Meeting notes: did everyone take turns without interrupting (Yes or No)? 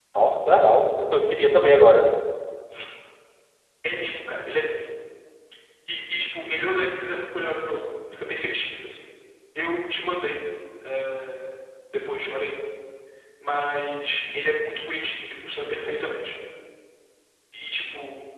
Yes